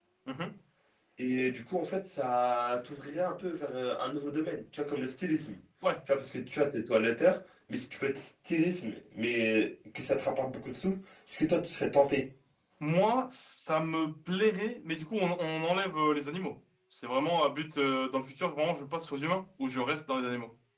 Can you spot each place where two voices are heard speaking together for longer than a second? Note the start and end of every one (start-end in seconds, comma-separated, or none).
none